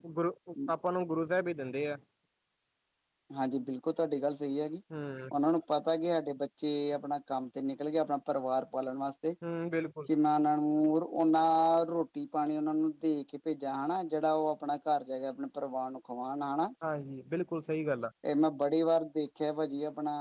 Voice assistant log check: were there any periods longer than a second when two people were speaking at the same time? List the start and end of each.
none

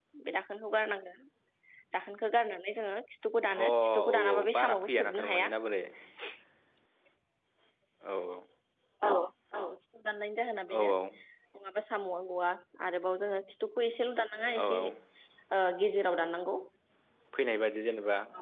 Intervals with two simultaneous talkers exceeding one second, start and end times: 3.6-5.5

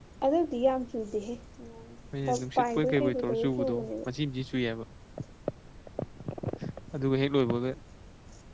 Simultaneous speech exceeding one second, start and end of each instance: 2.3-3.9

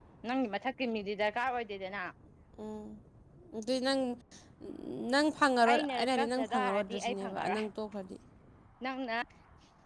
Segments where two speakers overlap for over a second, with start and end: 5.7-7.6

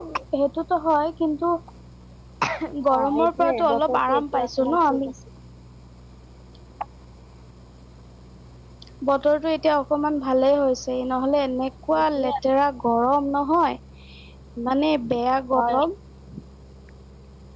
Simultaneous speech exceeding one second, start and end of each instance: 3.0-5.1

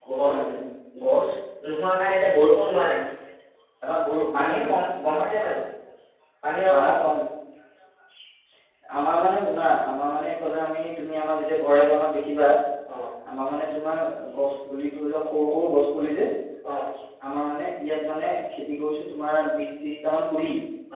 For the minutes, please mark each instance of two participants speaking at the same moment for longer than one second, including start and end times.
none

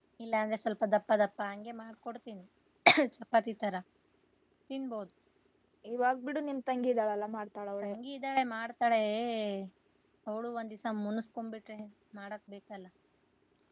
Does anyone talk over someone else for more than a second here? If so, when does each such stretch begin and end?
none

